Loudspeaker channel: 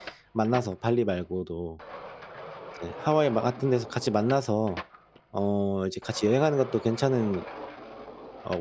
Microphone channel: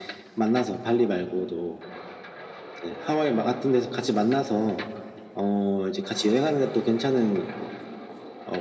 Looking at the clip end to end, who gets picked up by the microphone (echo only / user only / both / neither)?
echo only